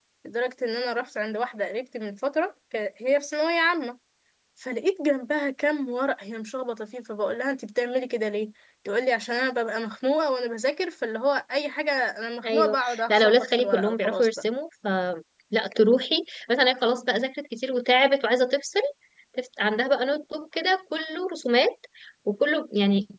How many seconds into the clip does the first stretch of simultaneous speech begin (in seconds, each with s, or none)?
12.4 s